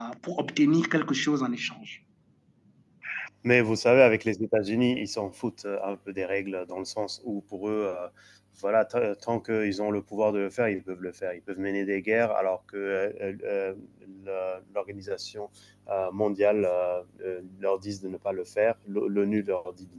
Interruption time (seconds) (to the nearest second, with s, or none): none